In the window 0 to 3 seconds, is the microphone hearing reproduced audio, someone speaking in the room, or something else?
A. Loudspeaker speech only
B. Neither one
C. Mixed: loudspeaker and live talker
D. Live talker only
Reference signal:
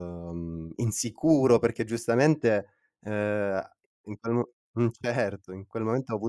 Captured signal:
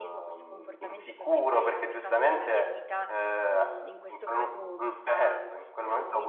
C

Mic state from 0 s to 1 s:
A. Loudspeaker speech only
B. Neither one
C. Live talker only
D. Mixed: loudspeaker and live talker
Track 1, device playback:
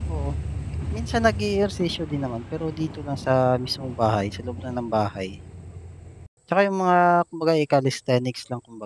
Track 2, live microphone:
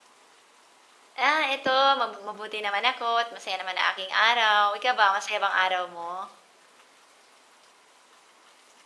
B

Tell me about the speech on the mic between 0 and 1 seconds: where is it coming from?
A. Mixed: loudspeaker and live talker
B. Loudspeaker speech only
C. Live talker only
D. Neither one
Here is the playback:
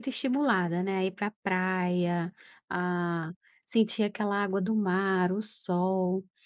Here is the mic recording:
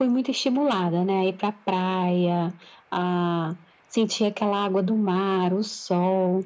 B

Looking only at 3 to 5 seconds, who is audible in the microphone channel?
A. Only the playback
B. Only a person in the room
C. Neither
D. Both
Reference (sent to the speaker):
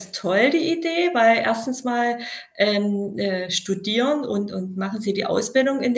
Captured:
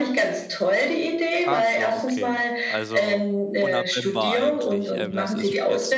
D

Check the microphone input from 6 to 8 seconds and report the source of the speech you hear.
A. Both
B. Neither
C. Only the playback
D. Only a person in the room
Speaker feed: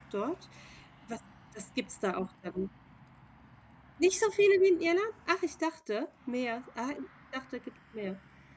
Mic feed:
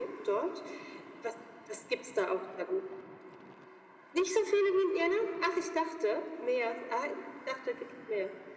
C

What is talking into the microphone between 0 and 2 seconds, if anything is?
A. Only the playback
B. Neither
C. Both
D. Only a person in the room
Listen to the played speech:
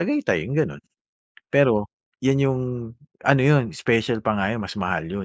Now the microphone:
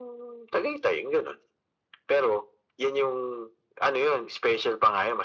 A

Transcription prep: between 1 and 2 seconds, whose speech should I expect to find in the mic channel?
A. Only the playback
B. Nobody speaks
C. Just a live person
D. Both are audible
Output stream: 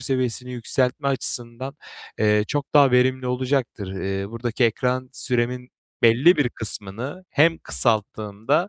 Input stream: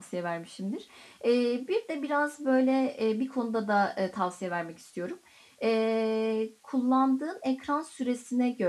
C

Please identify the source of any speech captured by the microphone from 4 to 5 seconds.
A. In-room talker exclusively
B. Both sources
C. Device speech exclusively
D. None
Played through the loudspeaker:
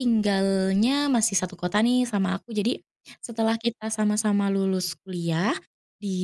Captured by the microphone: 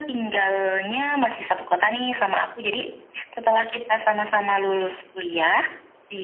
C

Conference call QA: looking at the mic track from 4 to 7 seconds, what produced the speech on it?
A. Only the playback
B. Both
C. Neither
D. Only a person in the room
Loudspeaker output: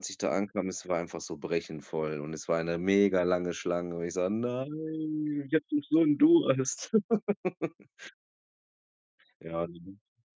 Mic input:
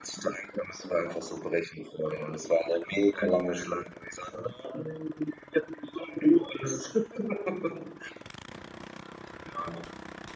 A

